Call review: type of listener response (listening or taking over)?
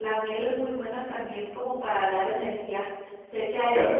taking over